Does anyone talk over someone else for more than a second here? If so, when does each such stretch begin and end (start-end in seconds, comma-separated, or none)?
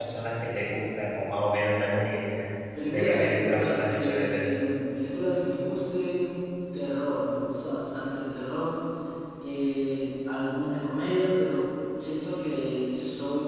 2.9-4.4